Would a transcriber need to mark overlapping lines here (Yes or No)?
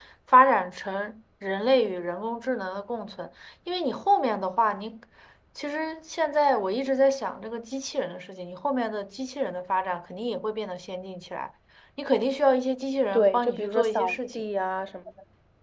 Yes